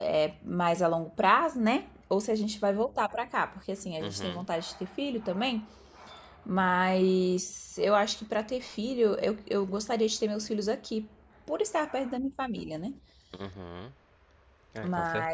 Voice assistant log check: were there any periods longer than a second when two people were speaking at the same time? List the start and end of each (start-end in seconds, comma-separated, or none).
none